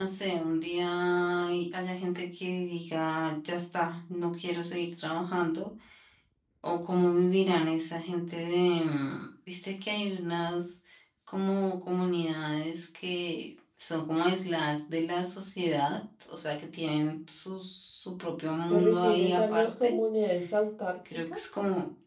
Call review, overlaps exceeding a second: present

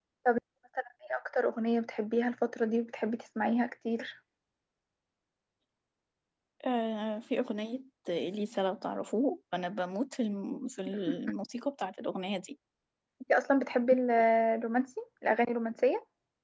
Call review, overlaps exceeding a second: none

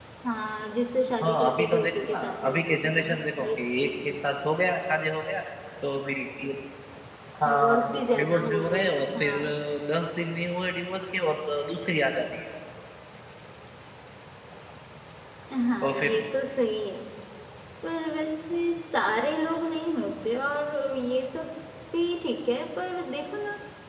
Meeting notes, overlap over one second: present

